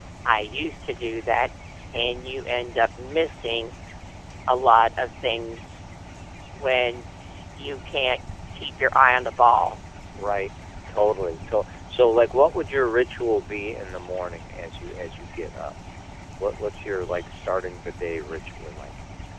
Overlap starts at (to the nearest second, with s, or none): none